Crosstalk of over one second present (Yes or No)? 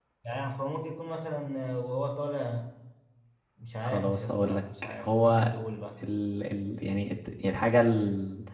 Yes